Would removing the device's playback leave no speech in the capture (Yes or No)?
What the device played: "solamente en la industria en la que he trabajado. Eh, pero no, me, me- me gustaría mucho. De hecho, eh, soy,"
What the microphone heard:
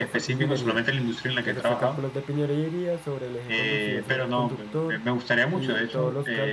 No